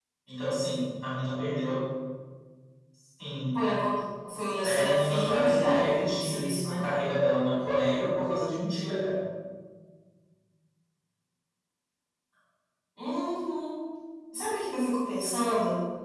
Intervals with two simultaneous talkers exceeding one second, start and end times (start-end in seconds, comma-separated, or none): 4.6-6.8